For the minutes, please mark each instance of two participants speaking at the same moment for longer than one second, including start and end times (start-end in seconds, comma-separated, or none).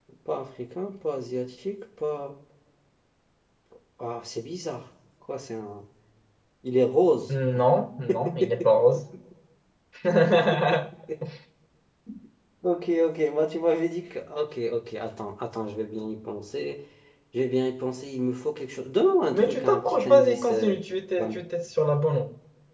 19.5-20.7